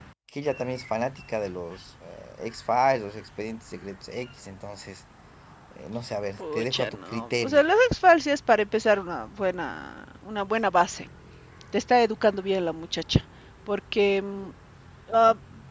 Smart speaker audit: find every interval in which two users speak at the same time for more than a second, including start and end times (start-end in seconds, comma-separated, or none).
6.4-7.6